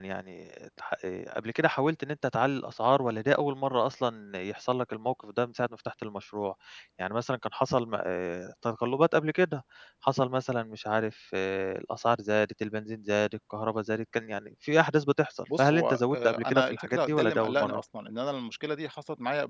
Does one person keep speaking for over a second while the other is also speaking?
Yes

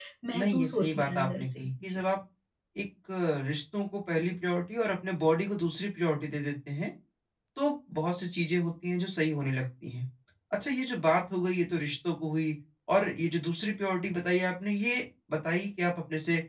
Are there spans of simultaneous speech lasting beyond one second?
Yes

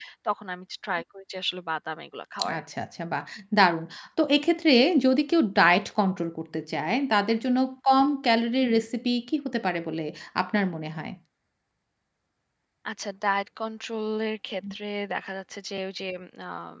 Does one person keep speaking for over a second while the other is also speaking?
No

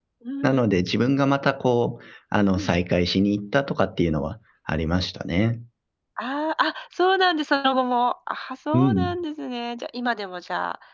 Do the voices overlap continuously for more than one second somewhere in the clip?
No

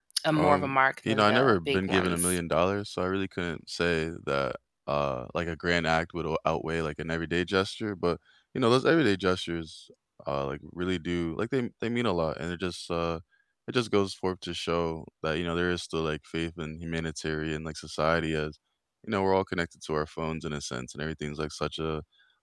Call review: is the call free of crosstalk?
No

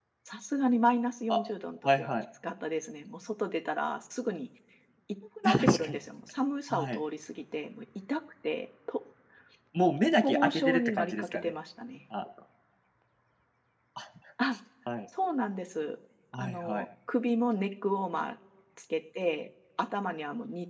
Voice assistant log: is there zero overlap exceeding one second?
No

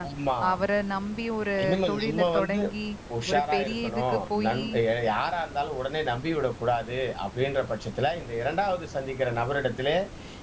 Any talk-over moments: Yes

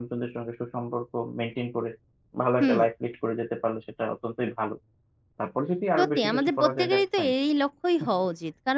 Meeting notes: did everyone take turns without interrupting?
No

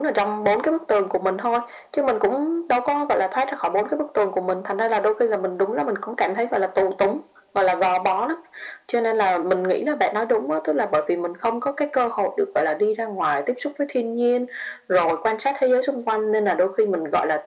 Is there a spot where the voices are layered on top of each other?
No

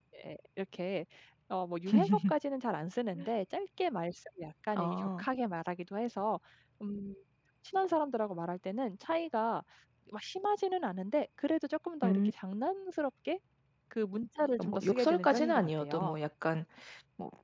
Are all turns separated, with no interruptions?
No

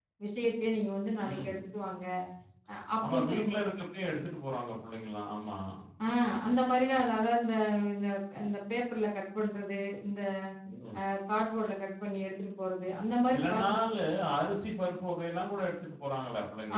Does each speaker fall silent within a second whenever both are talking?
Yes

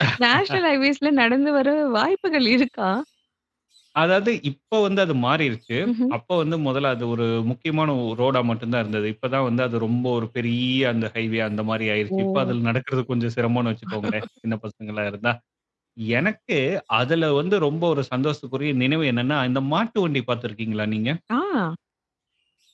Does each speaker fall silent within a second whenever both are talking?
Yes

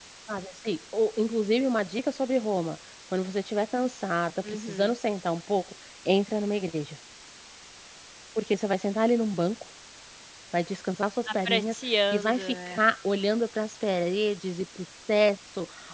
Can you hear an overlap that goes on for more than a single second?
Yes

